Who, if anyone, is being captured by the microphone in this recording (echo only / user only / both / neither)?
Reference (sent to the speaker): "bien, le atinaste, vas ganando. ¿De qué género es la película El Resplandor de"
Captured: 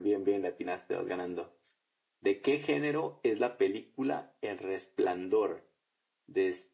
echo only